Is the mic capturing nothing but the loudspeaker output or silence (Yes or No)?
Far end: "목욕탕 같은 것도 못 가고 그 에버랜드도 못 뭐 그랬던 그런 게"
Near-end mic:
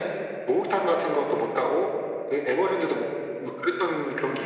Yes